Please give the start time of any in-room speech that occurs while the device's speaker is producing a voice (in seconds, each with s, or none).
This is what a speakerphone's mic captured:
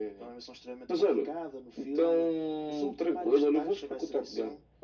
none